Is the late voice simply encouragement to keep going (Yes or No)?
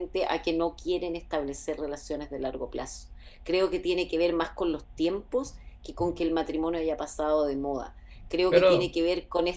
Yes